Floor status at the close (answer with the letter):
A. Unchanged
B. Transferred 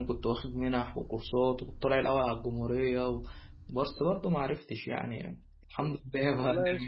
B